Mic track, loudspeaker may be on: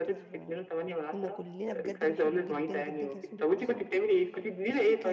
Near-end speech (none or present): present